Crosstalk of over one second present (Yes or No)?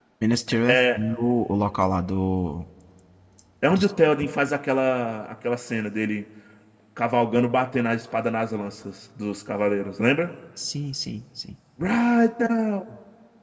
No